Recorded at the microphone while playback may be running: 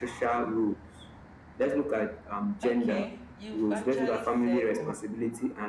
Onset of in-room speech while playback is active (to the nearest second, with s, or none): 3 s